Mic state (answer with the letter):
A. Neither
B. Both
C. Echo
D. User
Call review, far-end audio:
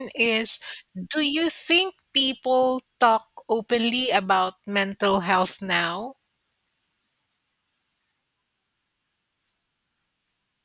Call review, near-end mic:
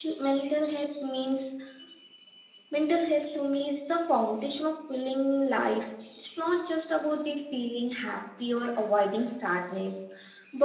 D